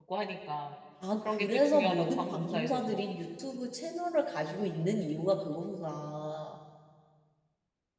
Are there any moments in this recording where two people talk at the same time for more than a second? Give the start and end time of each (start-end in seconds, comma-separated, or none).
1.2-3.0